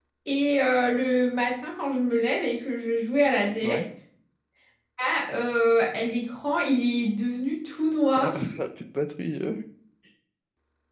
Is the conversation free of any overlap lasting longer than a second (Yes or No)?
Yes